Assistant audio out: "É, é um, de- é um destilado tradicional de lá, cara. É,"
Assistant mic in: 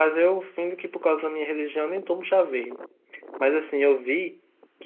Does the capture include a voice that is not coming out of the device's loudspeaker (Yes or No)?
Yes